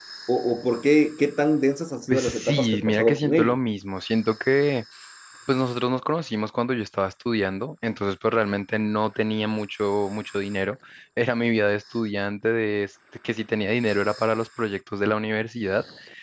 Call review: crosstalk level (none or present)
present